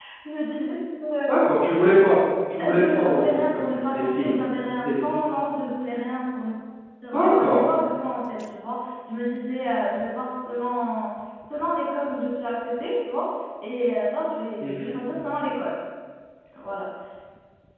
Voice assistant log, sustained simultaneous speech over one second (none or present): present